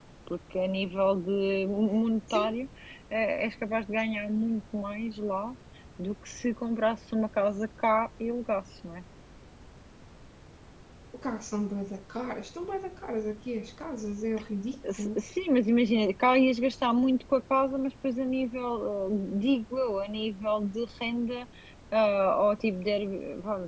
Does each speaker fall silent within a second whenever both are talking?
Yes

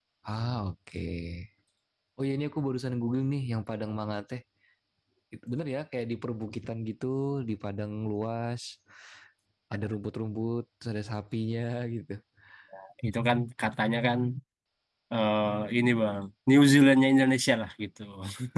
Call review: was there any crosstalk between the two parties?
No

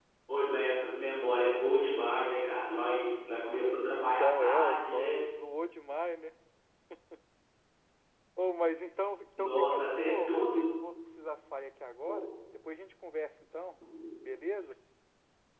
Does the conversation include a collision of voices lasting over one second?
Yes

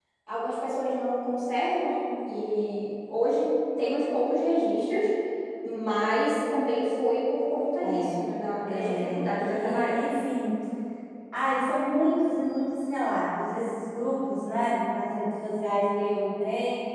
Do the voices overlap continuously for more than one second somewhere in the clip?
Yes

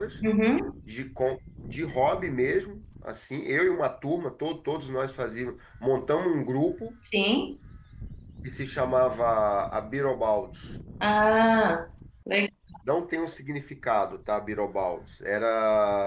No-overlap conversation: Yes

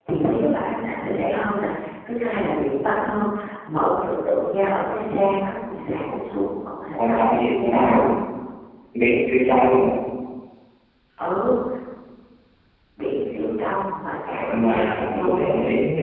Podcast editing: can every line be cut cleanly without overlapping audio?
No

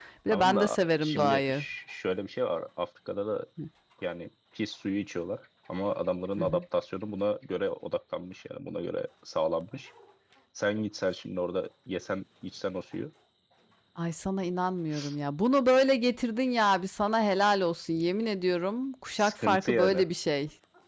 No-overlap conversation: No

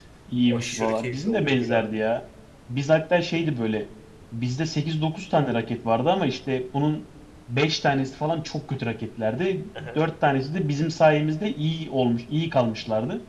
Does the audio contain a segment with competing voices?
Yes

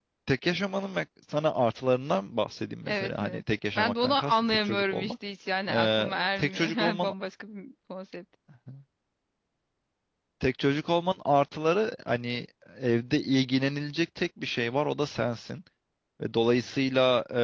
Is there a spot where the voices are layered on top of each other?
Yes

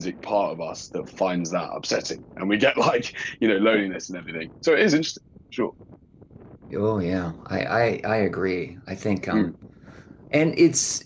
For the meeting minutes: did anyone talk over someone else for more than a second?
No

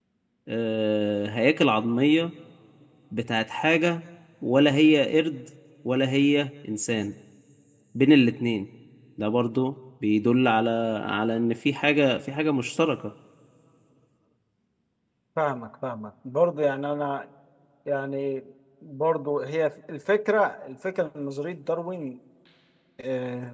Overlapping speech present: No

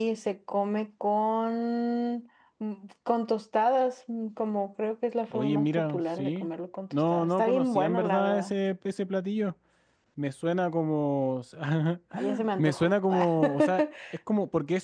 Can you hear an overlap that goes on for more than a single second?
Yes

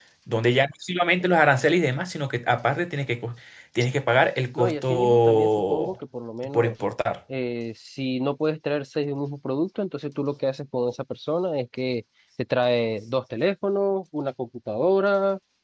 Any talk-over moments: Yes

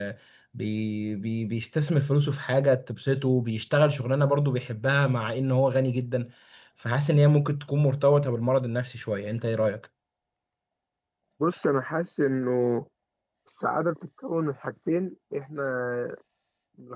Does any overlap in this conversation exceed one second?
No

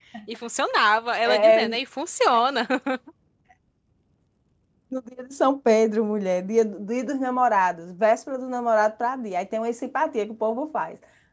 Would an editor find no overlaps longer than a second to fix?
Yes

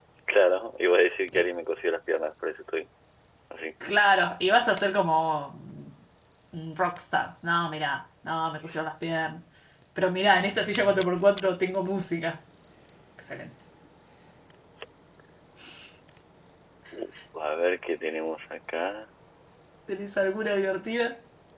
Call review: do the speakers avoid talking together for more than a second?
Yes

